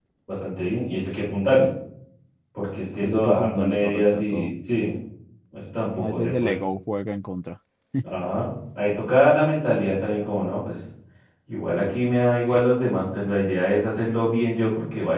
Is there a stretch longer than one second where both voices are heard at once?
Yes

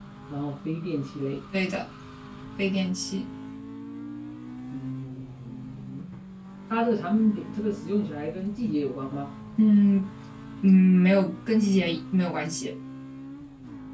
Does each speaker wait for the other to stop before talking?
Yes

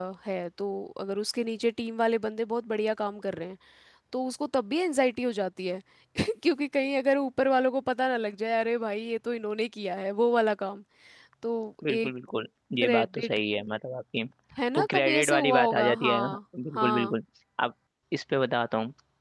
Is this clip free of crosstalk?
No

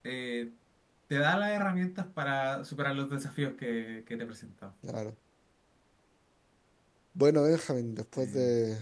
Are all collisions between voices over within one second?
Yes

